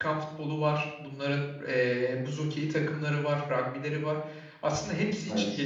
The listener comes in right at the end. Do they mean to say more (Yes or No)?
No